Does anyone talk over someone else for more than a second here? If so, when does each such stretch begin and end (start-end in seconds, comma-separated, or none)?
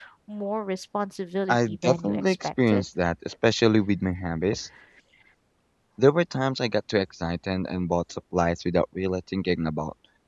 1.5-2.8